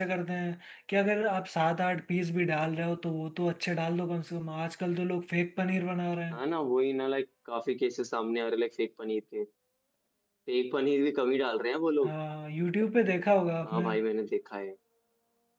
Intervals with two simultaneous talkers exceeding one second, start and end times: none

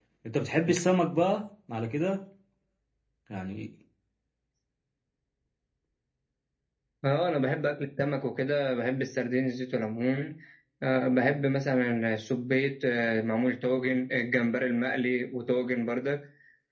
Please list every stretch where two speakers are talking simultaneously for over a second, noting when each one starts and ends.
none

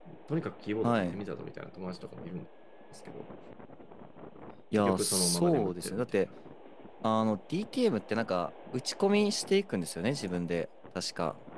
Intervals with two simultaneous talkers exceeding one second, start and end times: 4.8-6.1

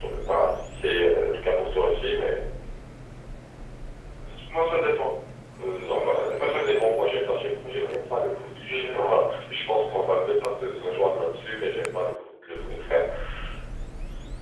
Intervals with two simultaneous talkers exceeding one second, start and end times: 5.6-6.9

